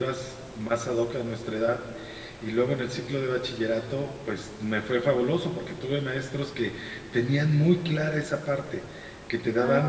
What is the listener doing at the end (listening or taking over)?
listening